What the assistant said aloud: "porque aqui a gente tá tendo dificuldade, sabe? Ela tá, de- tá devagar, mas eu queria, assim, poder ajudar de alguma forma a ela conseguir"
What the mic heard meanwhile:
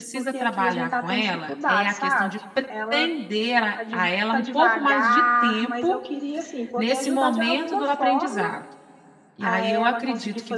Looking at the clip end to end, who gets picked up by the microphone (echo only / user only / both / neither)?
both